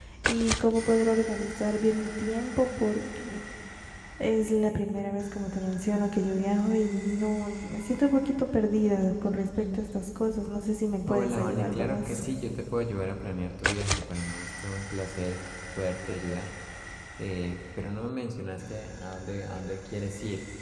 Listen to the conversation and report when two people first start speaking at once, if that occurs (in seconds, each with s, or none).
11.0 s